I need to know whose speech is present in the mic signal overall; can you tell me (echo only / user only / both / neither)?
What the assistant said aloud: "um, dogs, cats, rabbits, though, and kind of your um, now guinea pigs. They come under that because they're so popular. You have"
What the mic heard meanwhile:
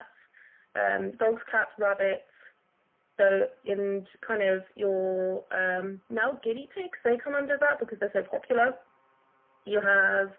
echo only